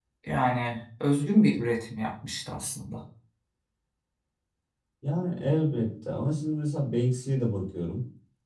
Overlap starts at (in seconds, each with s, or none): none